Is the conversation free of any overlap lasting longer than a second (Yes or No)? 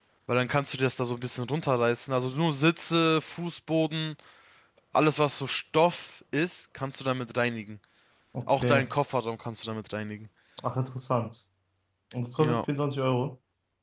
Yes